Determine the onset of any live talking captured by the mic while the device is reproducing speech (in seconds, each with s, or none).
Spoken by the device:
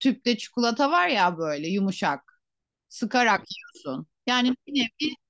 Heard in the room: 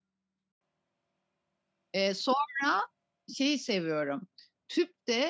1.9 s